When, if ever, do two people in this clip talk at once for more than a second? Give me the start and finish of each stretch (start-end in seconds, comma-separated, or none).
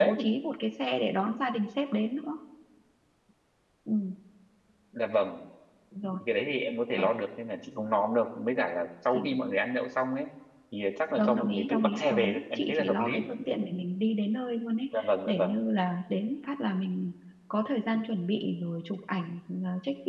11.2-13.2